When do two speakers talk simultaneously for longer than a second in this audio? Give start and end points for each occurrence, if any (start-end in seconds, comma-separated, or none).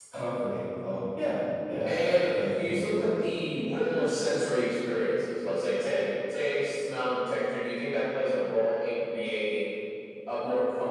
1.9-3.1